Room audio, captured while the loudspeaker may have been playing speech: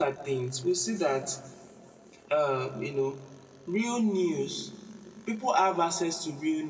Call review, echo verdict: none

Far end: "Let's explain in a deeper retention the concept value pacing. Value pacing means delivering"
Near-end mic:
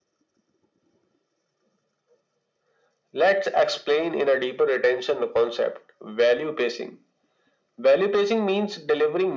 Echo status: present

